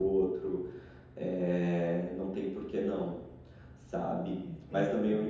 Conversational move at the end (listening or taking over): listening